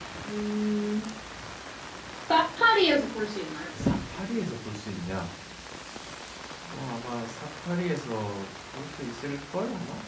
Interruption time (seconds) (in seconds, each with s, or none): none